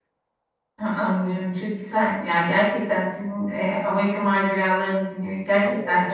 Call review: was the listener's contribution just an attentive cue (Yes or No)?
No